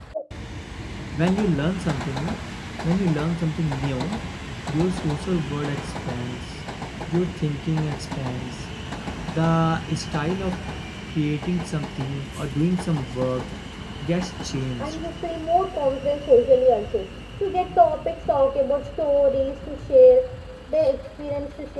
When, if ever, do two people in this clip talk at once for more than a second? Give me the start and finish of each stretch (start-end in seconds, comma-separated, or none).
none